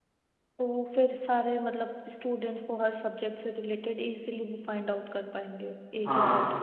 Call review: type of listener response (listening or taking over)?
taking over